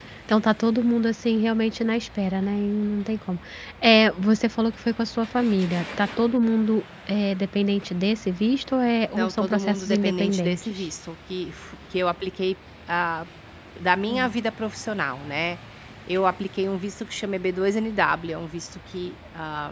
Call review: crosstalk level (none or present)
present